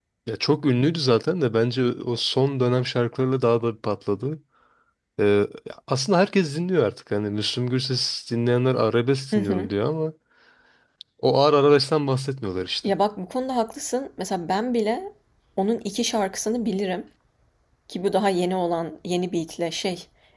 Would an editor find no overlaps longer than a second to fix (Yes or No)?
Yes